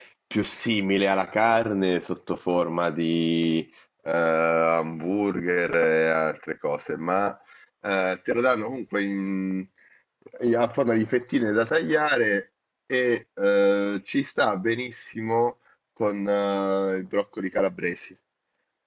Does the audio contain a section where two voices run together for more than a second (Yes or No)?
No